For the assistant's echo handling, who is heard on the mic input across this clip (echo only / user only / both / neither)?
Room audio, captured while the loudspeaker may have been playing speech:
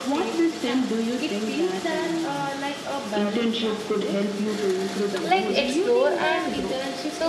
both